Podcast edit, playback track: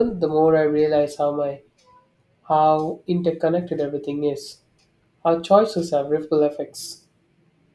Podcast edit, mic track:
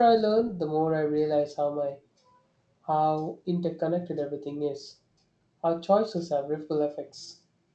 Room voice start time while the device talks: none

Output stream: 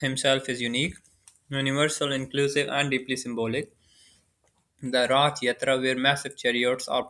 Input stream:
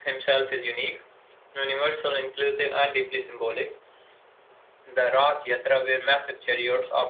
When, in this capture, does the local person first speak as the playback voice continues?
none

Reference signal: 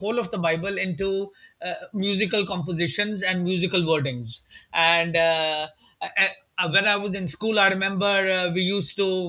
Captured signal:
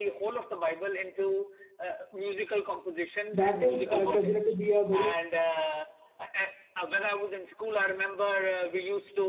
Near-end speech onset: 3.3 s

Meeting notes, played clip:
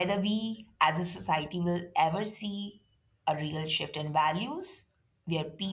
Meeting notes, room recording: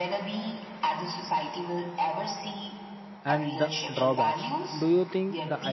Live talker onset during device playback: 3.2 s

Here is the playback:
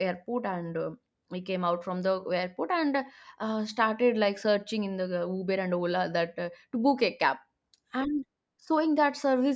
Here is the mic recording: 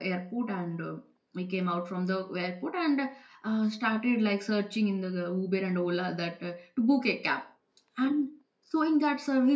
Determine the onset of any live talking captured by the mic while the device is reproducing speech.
none

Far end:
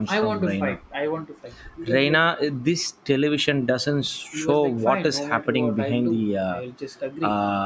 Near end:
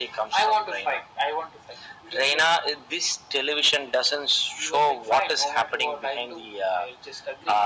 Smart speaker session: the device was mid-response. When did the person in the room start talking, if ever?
none

